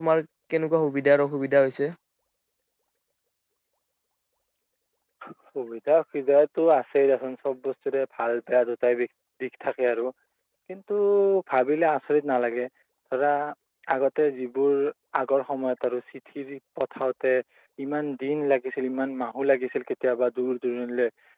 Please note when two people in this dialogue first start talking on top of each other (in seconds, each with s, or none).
none